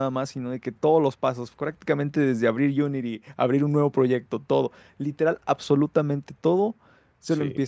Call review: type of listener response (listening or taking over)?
listening